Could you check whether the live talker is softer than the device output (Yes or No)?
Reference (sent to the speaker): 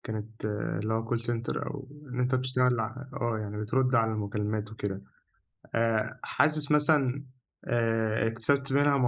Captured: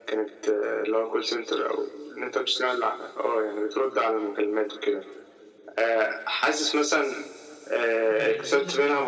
Yes